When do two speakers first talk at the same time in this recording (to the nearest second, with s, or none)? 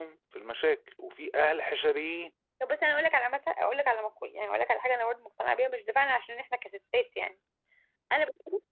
none